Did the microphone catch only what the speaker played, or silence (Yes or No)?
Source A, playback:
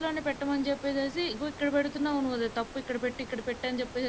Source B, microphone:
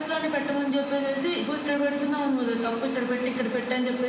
Yes